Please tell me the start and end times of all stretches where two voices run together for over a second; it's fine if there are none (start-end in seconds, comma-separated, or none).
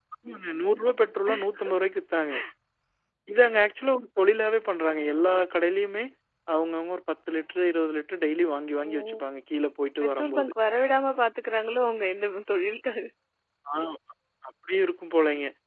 none